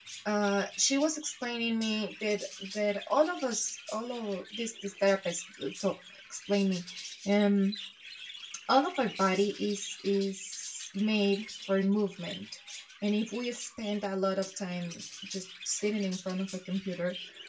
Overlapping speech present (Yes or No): No